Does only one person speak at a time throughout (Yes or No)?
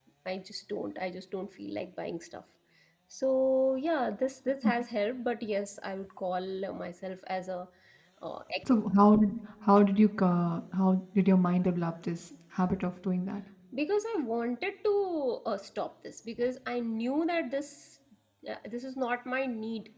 Yes